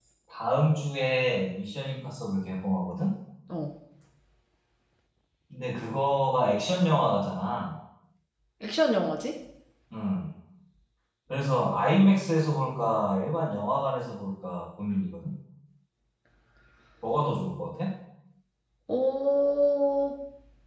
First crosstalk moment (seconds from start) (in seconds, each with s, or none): none